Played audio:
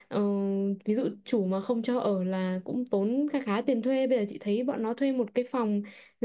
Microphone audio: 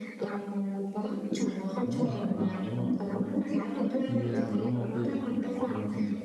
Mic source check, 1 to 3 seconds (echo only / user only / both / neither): both